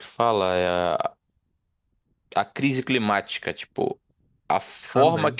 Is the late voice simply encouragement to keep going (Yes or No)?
Yes